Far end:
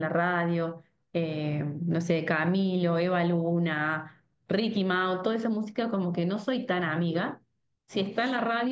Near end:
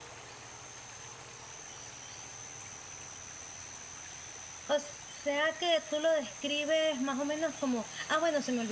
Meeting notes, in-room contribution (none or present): present